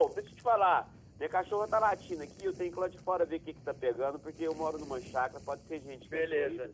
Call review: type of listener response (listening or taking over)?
taking over